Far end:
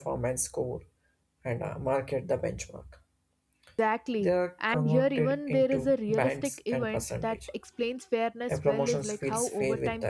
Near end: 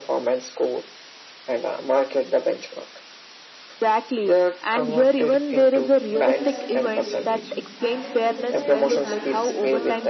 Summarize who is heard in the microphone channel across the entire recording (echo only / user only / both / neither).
both